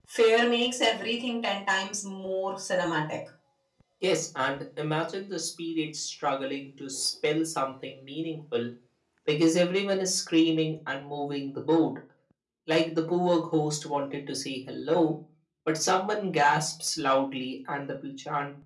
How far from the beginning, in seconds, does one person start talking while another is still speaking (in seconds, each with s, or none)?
none